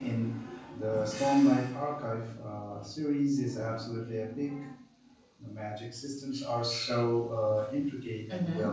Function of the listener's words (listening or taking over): taking over